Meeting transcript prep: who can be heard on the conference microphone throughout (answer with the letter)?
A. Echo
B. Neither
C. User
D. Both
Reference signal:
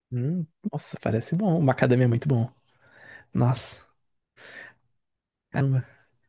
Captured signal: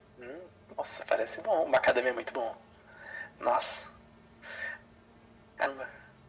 A